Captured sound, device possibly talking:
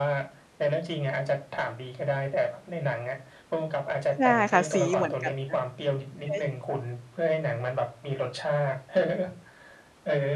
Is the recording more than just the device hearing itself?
Yes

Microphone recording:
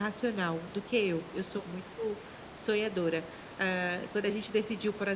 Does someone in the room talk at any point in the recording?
Yes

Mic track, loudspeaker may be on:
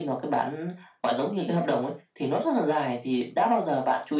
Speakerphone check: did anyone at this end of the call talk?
Yes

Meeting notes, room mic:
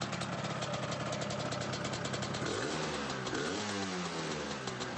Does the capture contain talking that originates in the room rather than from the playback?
No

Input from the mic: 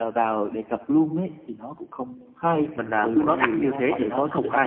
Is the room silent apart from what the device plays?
No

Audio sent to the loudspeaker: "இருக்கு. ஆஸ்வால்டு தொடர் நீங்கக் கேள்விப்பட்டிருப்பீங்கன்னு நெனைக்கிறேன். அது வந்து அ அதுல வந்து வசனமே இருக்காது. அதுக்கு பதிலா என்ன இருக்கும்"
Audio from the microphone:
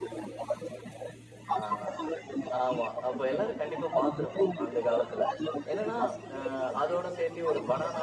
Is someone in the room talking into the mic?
Yes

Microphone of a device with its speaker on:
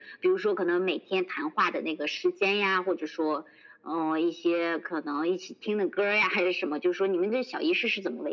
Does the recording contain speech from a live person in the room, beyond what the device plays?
No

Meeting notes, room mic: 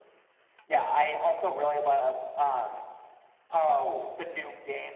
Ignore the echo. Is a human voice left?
No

